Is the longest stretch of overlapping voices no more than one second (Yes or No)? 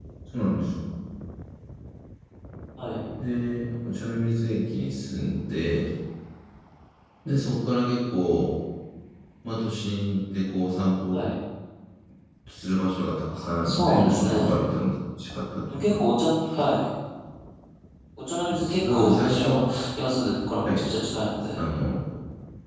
No